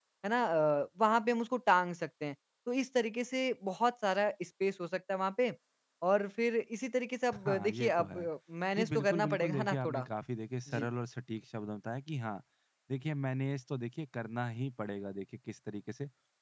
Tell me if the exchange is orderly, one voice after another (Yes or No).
No